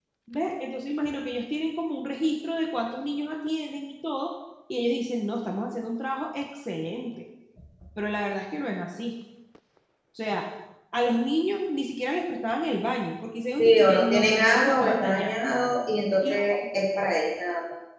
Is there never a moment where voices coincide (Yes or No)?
No